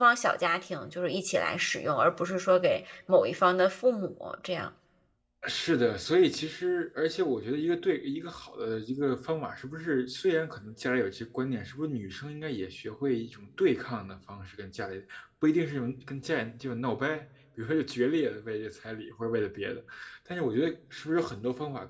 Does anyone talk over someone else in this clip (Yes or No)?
No